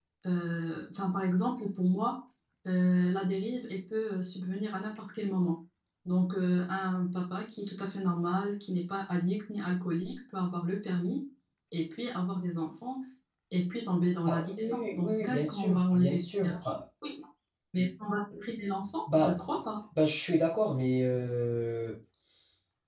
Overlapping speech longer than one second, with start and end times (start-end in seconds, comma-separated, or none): 14.2-16.8